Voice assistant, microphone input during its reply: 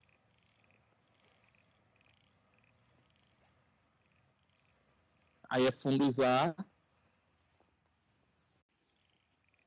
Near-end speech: present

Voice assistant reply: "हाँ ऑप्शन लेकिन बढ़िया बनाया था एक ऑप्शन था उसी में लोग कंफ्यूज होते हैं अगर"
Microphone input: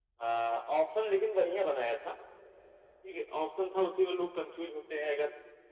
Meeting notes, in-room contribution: none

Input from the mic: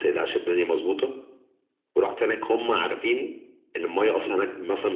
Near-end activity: none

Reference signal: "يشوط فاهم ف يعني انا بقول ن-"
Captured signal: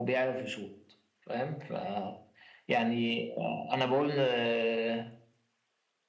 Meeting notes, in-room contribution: none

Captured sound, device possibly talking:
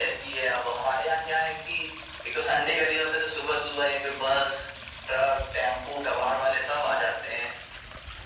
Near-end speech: none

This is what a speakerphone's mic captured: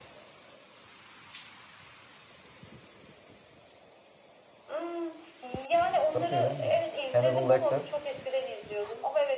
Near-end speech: present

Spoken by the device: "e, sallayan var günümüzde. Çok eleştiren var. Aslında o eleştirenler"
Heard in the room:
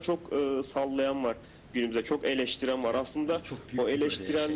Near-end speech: present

